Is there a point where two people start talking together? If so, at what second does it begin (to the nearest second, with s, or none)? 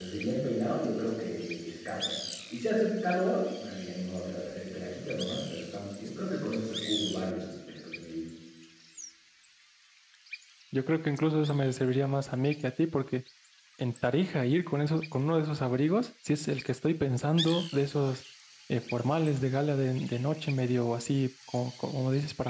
none